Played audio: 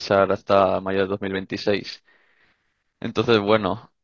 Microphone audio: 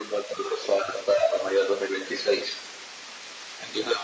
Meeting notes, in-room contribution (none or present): none